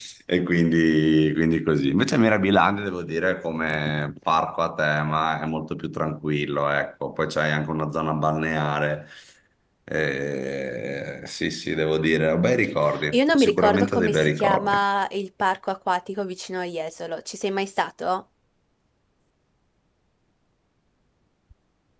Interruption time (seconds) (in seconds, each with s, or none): 13.1 s